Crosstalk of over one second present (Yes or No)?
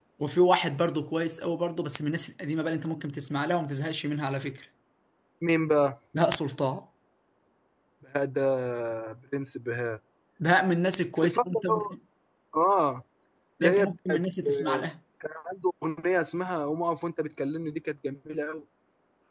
Yes